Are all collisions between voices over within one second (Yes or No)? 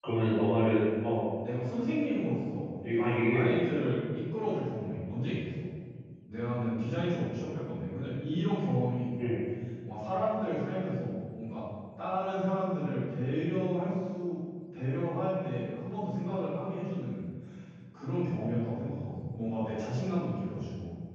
Yes